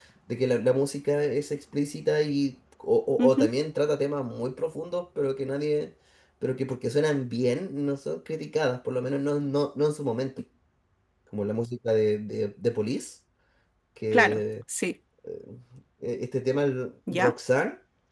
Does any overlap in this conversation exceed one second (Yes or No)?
No